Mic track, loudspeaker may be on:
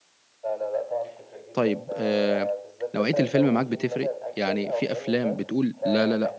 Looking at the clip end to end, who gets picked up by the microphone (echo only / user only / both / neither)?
both